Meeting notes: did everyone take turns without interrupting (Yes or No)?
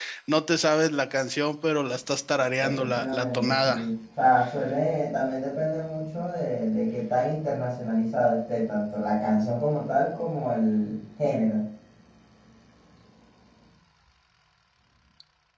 No